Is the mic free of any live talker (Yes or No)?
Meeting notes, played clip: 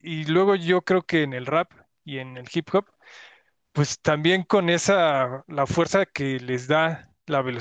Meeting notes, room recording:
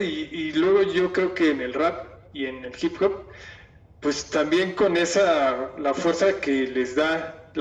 Yes